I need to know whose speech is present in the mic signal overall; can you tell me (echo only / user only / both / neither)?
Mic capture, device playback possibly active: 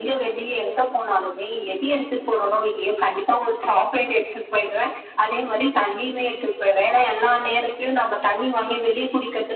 echo only